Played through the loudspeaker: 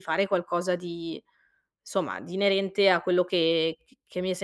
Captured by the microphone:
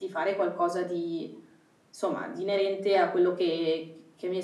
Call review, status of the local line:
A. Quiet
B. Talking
A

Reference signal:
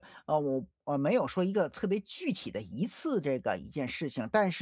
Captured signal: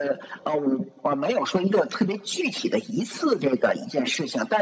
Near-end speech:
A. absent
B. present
A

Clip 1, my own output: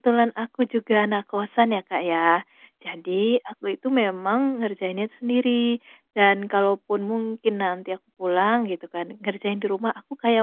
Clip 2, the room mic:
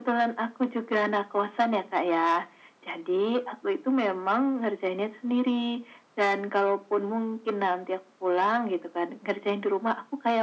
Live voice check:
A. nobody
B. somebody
A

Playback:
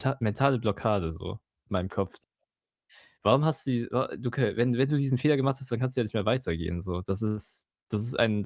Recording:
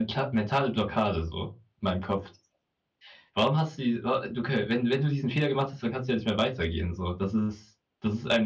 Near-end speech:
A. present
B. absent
B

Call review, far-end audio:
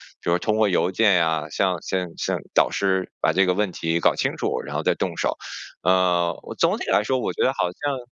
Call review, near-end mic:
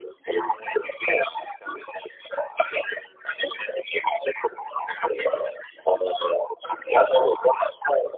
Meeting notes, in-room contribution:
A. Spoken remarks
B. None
B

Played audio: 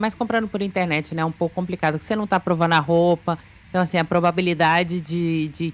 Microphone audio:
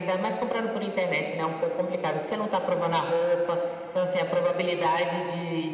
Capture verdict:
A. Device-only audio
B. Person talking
A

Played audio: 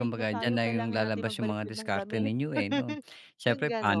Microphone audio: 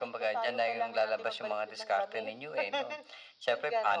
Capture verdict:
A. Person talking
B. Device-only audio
B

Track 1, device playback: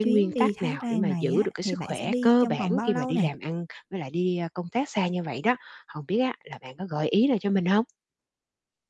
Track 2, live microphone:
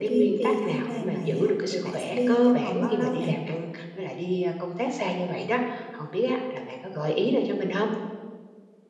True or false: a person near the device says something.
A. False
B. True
A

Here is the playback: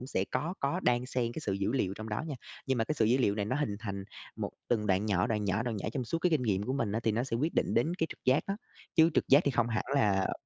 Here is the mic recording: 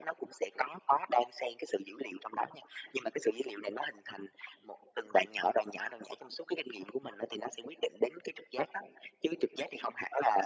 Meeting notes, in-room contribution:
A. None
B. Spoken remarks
A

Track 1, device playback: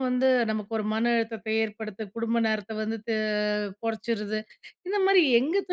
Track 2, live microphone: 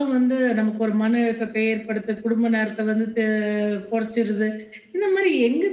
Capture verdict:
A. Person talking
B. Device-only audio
B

